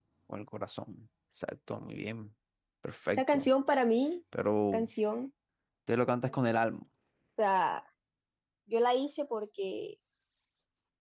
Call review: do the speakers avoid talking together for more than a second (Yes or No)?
Yes